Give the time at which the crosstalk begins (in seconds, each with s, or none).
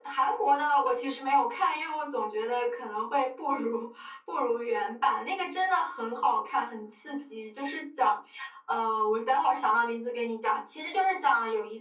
none